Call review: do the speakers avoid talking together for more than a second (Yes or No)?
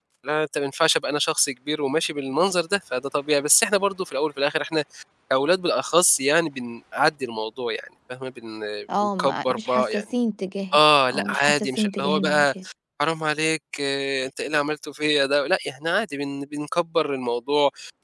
No